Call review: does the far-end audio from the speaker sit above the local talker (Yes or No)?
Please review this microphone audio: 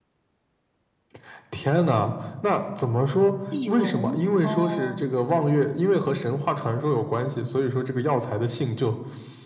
Yes